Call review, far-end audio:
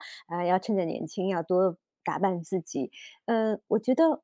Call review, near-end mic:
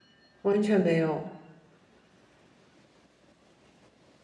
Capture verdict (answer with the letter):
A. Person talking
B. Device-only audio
A